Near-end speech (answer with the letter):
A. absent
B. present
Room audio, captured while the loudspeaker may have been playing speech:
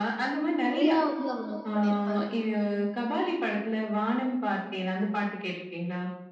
B